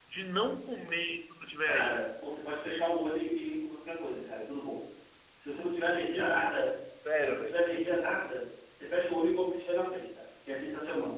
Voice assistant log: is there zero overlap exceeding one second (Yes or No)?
Yes